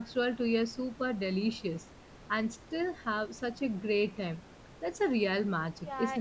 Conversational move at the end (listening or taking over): taking over